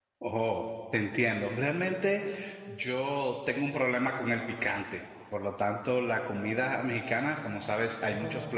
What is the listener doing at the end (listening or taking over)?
listening